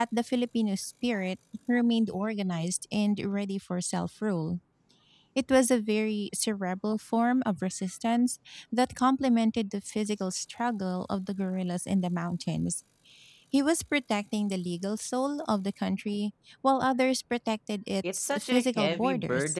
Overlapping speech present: Yes, from 18.0 s

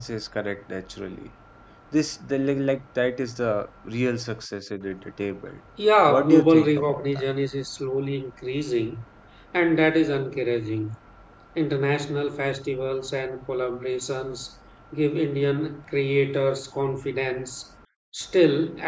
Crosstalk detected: Yes, from 6.1 s

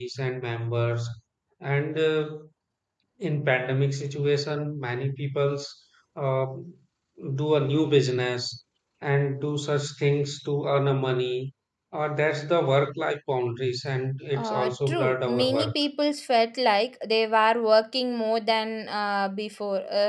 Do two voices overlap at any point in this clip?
Yes, from 14.3 s

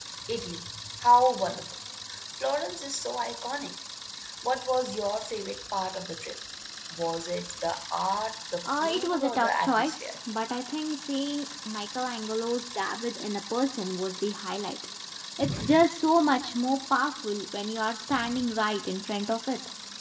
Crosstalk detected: Yes, from 8.6 s

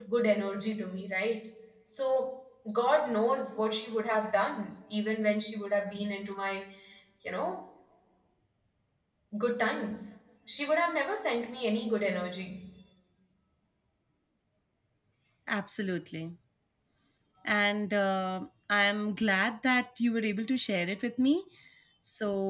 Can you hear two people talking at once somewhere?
No

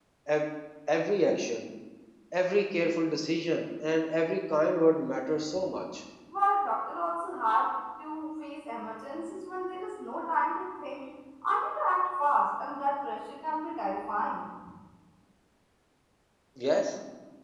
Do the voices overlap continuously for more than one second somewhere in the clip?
No

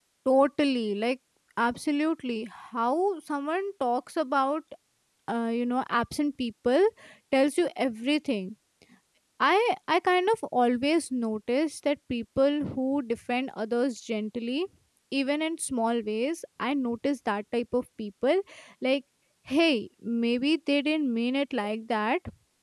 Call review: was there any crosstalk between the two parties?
No

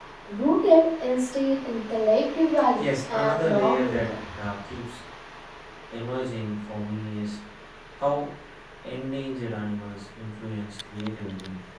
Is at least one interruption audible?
Yes, from 2.8 s

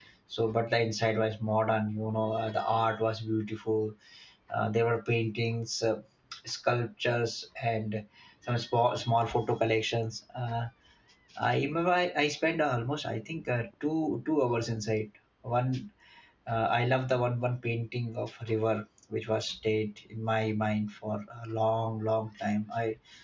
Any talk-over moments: No

